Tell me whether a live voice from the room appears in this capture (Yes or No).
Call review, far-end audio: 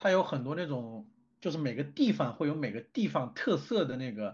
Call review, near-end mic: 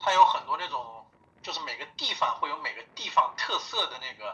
No